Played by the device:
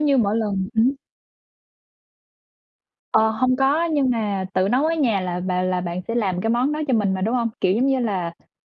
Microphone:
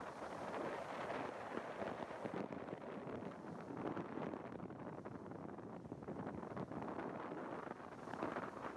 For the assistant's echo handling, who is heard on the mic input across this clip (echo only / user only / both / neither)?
neither